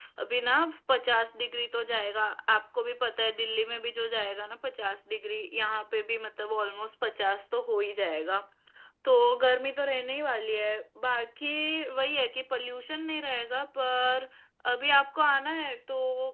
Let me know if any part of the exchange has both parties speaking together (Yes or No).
No